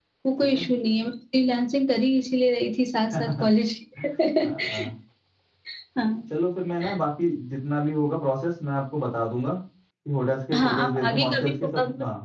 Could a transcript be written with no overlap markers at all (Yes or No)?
No